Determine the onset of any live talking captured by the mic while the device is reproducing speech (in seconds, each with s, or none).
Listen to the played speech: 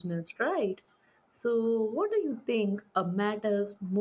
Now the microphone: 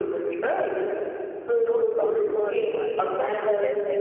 1.6 s